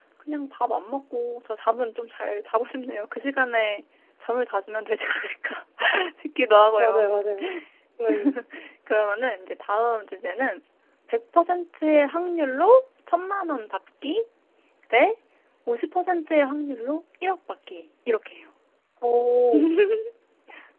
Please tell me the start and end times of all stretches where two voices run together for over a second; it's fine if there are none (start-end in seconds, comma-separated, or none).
none